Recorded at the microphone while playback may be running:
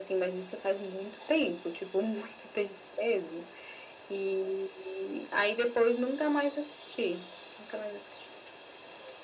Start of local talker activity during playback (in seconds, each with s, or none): none